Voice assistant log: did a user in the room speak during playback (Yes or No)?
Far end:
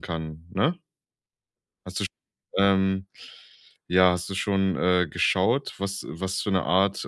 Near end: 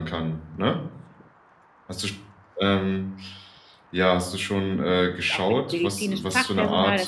Yes